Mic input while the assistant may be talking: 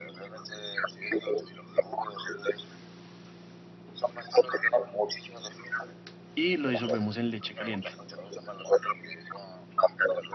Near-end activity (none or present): present